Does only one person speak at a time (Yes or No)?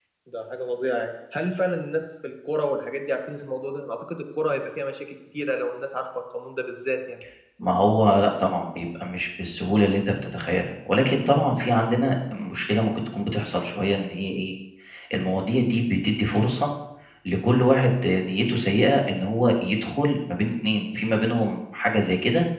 Yes